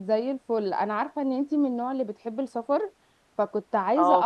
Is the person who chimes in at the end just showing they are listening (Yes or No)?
Yes